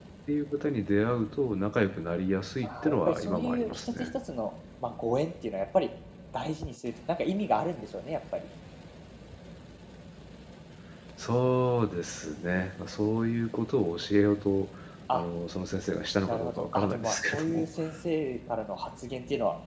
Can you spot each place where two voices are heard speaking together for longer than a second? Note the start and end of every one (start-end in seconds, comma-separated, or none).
2.6-4.1, 16.3-17.7